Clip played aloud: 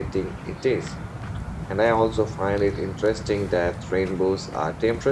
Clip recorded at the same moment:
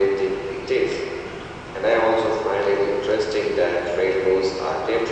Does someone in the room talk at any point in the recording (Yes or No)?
No